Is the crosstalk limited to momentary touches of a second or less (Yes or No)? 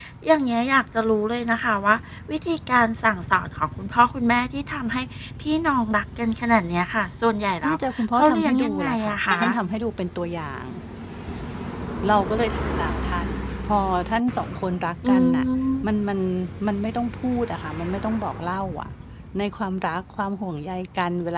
No